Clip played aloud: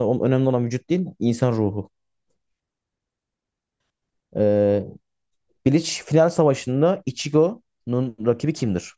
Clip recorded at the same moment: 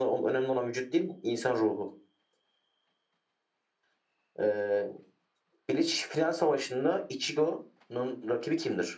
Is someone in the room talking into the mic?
No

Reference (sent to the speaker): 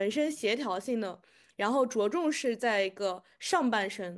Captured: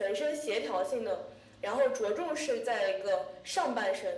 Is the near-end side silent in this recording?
Yes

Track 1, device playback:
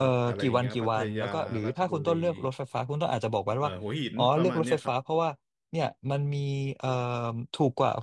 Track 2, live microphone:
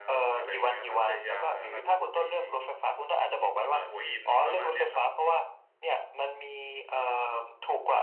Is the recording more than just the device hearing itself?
No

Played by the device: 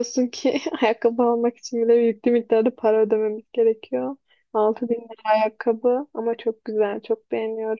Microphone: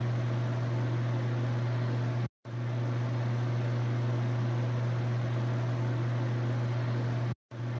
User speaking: No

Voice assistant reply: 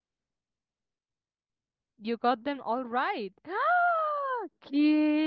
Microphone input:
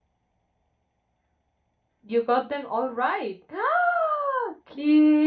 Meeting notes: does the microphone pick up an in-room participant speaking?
No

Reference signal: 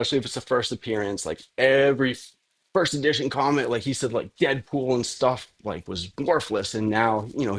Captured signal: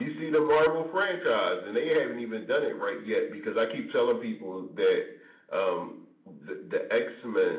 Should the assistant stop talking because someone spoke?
Yes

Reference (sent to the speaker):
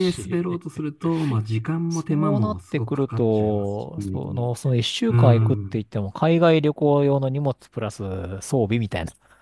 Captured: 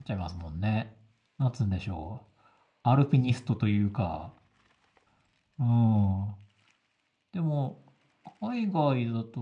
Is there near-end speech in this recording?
Yes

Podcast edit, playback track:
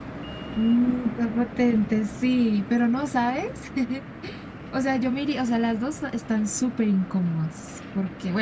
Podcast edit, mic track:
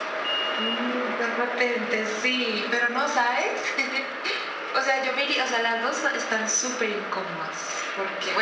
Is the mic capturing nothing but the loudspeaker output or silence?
Yes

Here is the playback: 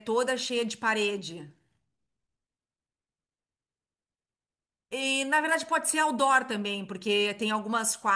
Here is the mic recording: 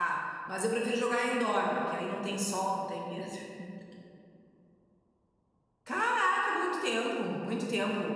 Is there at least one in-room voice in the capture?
Yes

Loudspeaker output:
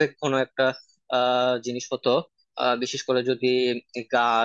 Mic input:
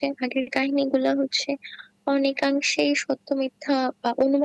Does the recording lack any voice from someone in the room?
No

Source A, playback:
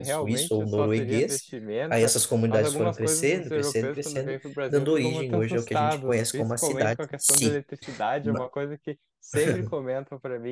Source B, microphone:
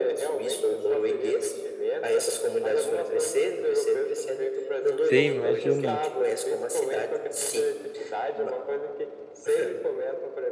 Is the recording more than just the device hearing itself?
Yes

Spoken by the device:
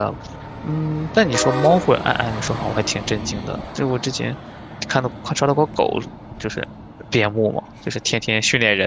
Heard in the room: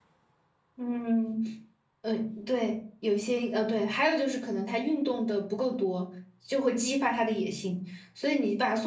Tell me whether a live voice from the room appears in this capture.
Yes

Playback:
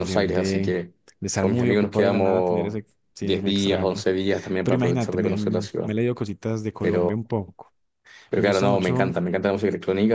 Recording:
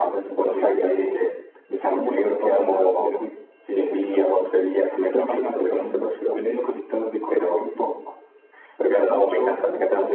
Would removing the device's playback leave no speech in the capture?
Yes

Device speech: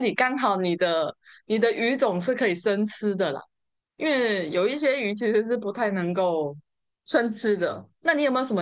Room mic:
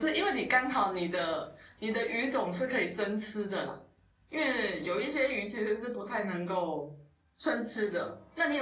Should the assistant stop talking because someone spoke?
No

